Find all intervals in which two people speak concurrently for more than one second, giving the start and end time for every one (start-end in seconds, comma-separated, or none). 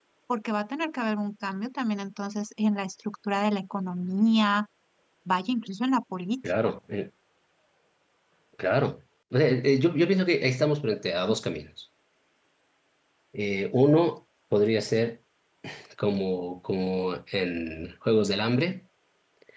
none